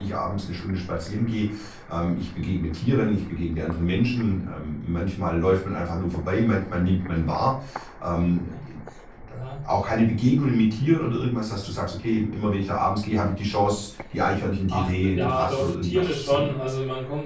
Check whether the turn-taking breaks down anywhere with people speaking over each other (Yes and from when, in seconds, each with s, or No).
Yes, from 14.7 s